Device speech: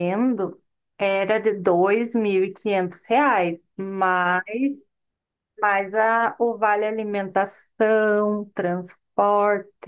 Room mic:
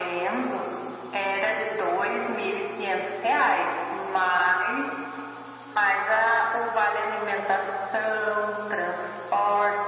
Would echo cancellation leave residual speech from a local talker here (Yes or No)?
No